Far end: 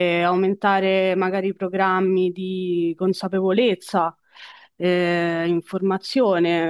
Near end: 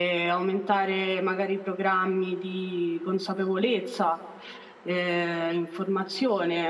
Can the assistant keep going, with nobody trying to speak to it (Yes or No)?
Yes